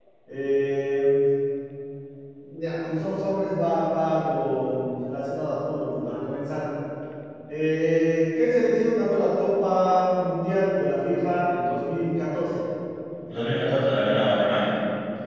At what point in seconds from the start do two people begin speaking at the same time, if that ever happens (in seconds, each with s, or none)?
none